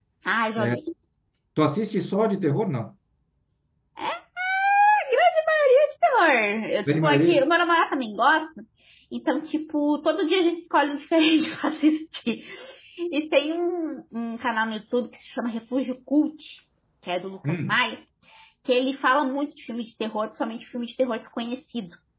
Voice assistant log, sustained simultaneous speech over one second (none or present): none